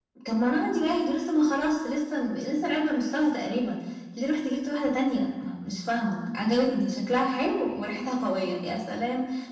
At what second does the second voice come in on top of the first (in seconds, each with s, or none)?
none